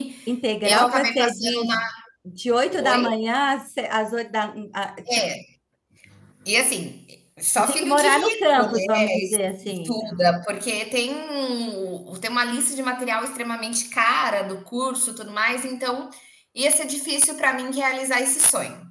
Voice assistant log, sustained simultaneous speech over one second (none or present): present